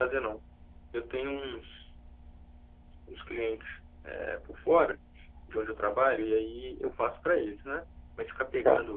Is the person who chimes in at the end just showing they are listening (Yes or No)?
Yes